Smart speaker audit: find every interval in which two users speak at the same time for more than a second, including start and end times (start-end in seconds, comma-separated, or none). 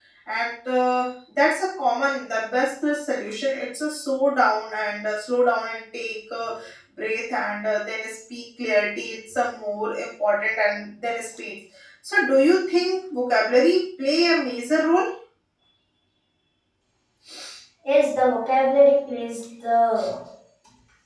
none